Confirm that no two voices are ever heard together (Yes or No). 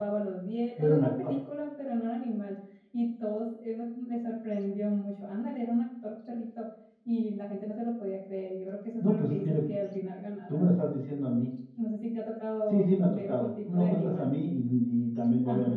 No